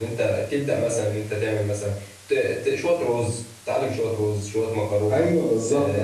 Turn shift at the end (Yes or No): Yes